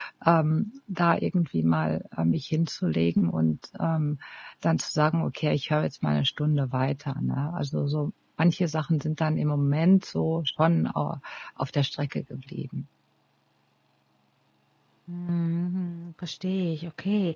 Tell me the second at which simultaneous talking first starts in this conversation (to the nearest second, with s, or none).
none